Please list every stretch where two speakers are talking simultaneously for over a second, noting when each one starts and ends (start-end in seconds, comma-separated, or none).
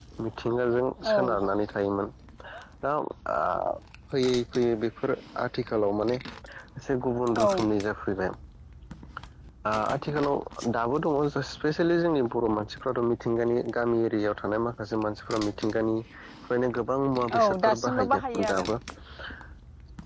17.4-18.6